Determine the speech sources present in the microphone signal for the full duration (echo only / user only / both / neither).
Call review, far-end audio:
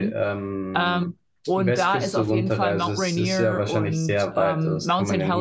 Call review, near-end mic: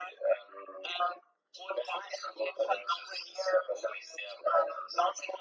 echo only